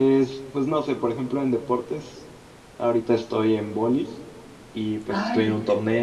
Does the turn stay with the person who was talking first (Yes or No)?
Yes